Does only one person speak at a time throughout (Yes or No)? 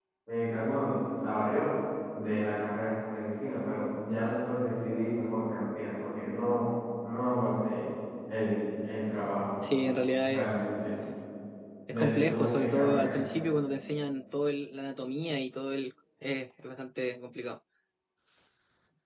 No